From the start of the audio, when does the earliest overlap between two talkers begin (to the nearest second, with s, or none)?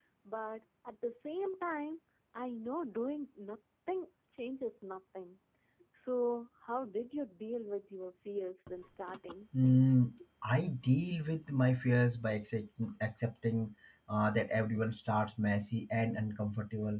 none